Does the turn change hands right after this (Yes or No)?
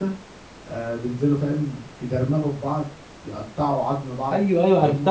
Yes